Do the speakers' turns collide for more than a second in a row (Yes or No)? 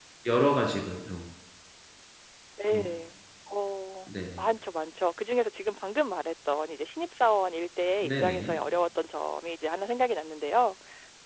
No